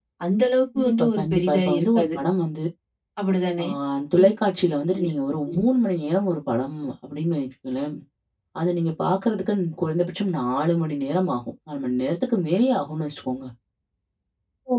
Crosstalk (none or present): present